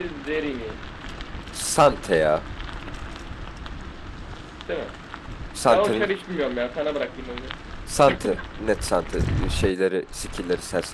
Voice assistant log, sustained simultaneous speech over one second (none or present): none